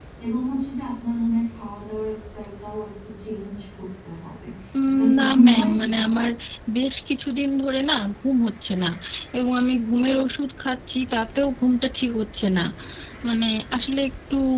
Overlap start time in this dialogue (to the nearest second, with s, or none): 5 s